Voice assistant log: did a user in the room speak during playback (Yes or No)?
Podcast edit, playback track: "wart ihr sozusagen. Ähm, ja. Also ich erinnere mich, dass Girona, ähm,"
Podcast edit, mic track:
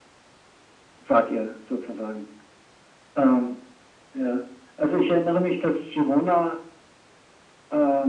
No